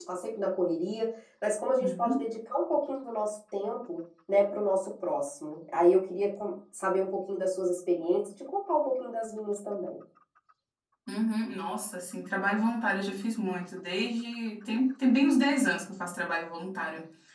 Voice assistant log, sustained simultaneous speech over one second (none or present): none